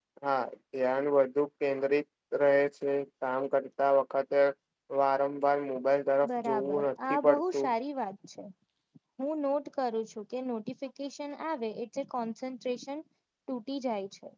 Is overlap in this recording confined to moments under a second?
No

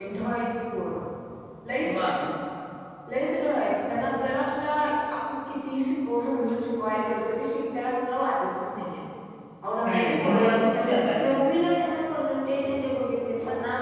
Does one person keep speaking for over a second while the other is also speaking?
Yes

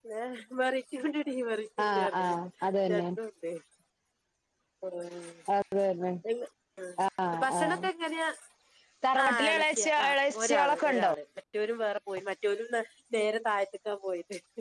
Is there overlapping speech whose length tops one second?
Yes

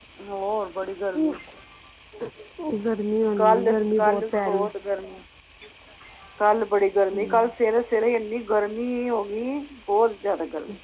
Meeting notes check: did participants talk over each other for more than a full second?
Yes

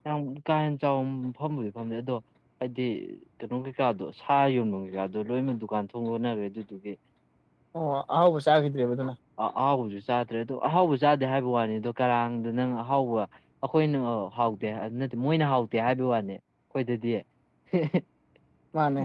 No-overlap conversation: Yes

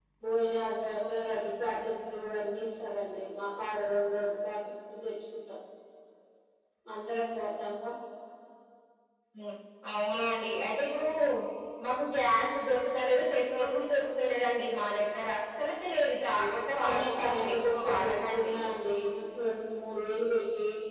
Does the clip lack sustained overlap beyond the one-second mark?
No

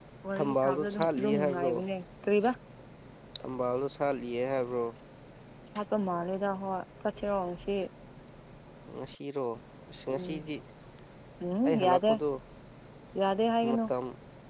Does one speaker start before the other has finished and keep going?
Yes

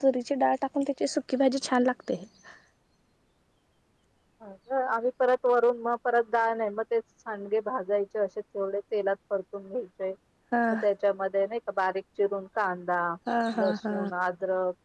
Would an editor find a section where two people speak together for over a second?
No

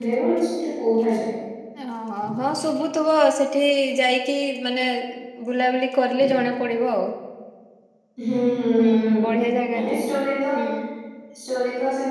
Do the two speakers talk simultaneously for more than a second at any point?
No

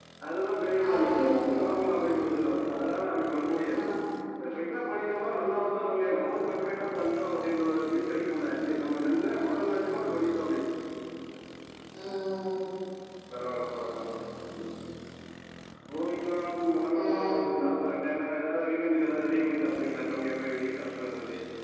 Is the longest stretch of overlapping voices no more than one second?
Yes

